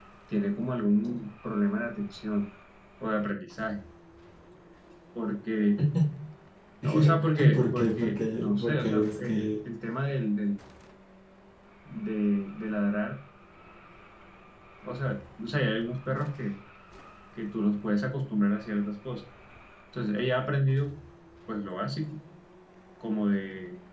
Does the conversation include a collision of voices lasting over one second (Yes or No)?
Yes